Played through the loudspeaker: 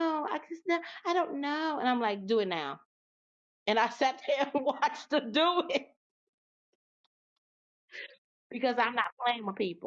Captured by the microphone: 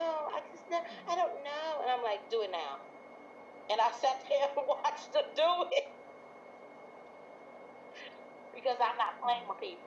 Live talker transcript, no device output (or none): none